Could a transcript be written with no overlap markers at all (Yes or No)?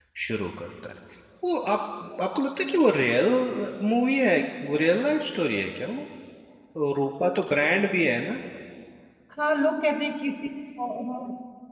Yes